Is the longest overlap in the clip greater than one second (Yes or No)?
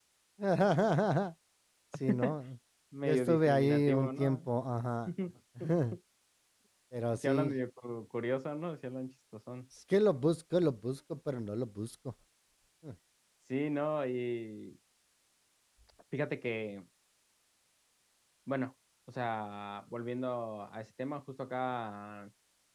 Yes